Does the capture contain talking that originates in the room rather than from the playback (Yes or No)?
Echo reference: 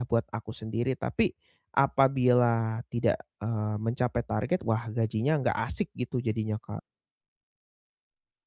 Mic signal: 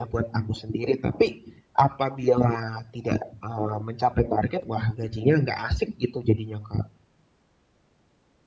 No